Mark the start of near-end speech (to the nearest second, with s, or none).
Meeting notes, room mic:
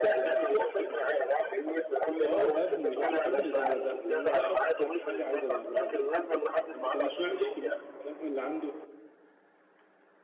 2 s